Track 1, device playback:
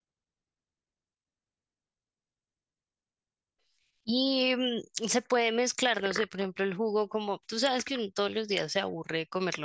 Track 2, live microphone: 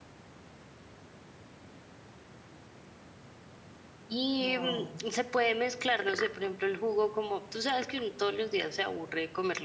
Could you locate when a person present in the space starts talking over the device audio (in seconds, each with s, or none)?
4.4 s